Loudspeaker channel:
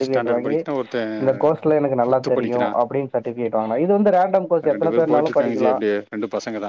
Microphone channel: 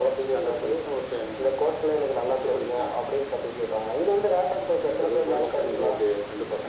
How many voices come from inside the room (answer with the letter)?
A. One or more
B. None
B